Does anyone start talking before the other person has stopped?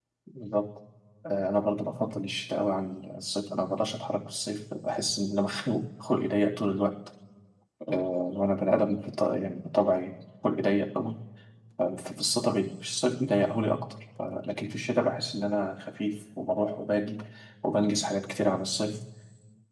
No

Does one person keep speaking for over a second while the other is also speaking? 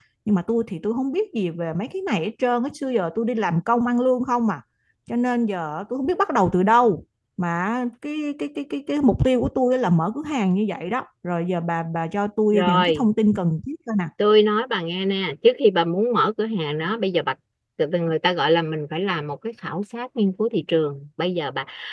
No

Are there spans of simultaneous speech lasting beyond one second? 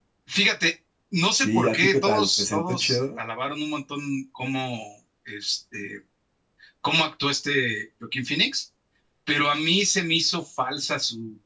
Yes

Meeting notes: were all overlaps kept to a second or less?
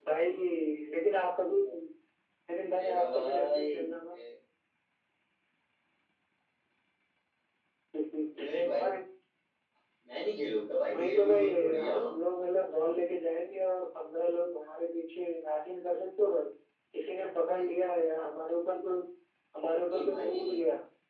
No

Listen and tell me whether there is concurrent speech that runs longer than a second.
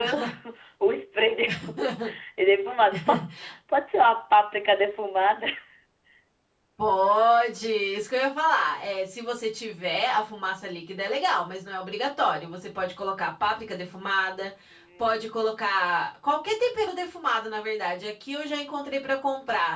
No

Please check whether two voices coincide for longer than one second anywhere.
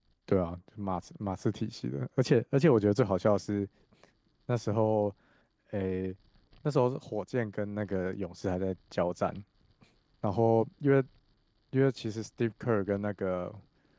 No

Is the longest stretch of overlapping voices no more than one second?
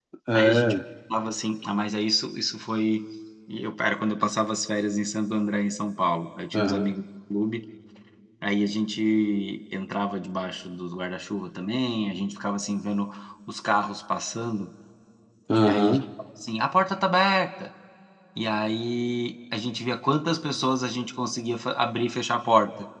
Yes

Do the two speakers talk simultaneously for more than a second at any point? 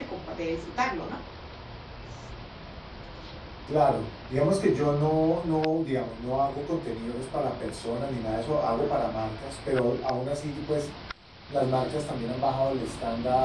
No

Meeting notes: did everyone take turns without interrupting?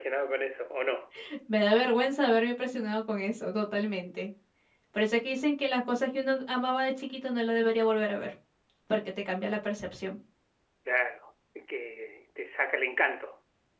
Yes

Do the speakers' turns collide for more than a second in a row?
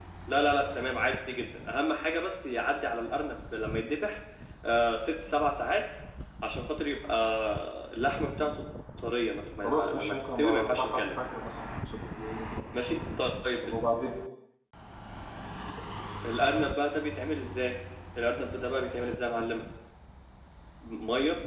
Yes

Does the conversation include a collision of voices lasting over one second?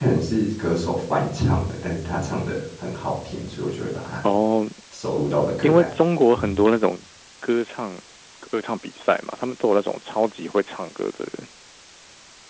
No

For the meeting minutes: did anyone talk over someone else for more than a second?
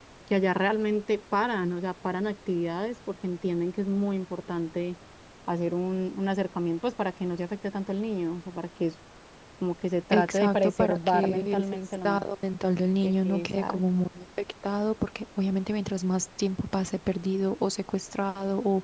Yes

